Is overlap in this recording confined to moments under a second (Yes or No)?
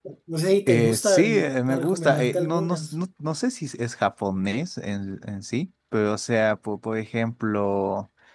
No